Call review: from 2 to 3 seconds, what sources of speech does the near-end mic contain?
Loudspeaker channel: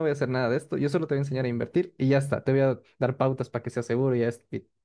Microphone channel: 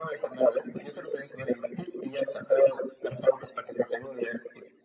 echo only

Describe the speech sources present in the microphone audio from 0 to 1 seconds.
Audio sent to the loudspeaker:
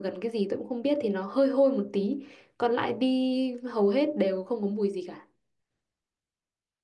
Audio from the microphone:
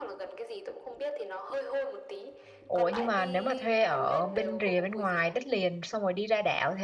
echo only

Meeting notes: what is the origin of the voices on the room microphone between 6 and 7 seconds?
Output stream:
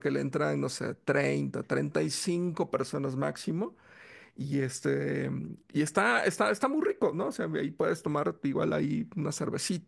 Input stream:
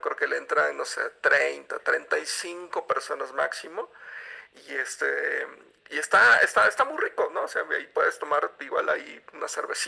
echo only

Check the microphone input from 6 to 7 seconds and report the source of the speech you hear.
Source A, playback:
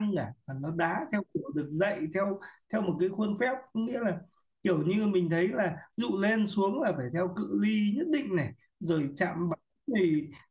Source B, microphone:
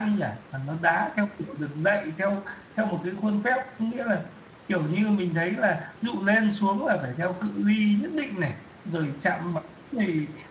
echo only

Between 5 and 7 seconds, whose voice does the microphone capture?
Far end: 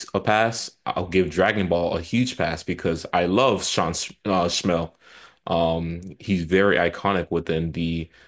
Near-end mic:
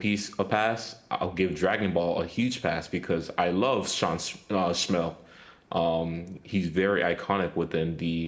echo only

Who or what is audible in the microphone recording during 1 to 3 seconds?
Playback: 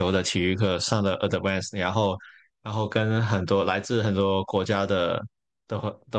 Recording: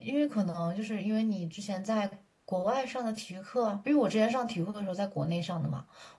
user only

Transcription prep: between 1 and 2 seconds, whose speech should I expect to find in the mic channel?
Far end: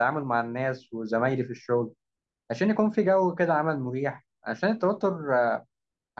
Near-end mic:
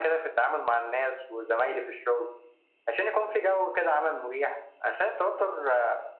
echo only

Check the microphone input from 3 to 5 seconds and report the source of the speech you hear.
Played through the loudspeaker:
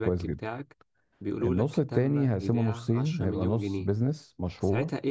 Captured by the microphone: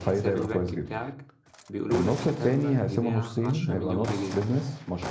echo only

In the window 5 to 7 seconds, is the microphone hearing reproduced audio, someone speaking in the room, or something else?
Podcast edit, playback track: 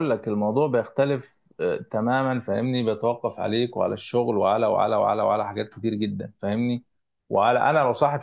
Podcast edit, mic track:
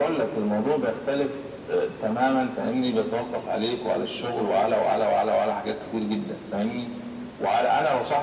echo only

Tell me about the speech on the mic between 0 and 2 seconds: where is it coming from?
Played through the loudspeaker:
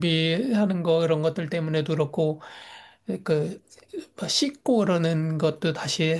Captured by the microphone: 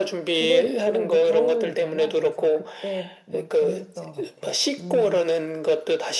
both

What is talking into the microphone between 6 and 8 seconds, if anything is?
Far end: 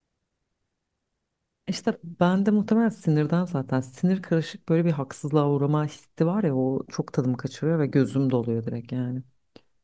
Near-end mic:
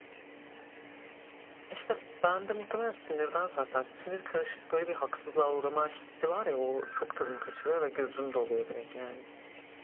echo only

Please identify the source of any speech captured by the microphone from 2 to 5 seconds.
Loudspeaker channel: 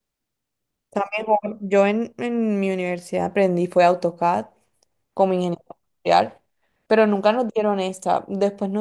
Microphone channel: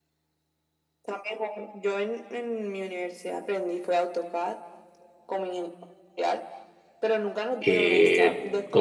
echo only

